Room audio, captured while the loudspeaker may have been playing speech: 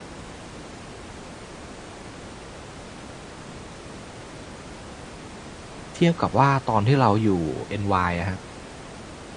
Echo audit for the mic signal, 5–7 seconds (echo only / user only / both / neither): user only